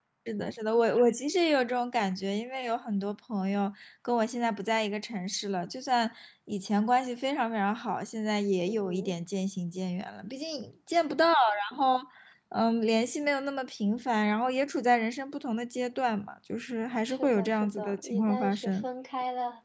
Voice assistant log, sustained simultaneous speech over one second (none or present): present